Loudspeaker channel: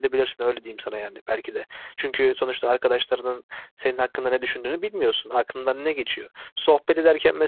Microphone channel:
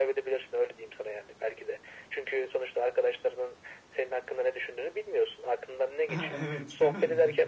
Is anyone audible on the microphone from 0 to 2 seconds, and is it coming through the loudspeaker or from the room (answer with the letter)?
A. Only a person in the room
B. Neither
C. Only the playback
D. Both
C